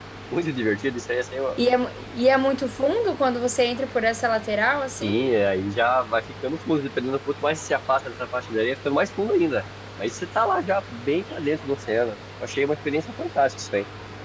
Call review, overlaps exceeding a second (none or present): none